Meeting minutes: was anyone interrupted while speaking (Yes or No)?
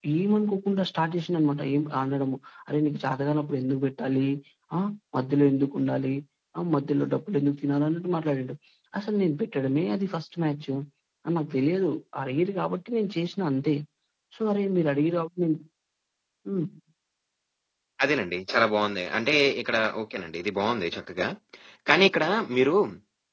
No